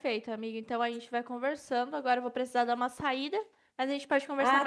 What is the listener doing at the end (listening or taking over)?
taking over